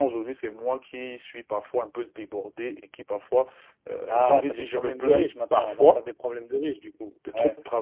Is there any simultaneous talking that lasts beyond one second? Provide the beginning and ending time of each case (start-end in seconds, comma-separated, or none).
4.1-6.0